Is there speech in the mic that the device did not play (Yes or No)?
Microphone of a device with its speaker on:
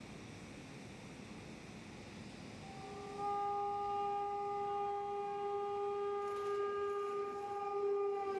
No